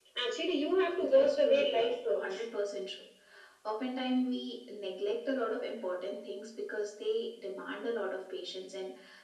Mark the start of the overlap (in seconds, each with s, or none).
1.0 s